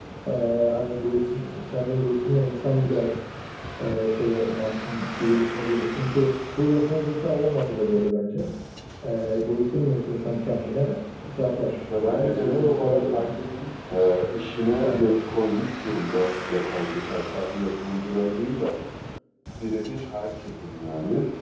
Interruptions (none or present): present